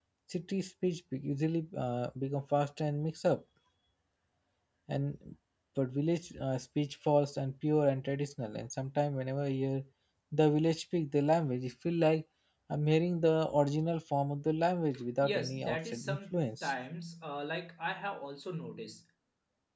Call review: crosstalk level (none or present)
present